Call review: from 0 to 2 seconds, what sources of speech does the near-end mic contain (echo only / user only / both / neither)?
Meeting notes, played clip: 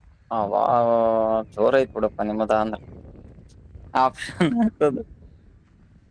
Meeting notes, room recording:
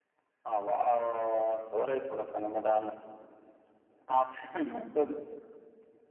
echo only